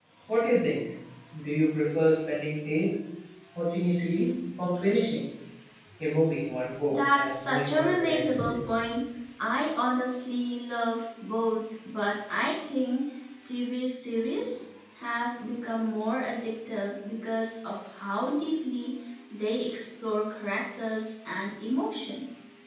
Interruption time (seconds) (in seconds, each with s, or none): 6.9 s